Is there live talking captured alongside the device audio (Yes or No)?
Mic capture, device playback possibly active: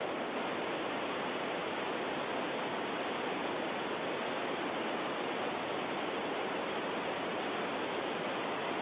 No